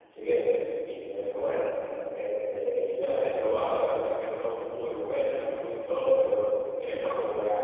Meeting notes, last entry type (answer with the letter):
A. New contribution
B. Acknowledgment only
B